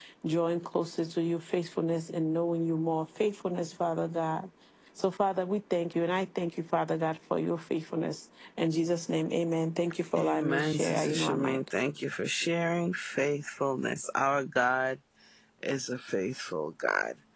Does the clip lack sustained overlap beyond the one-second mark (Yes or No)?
No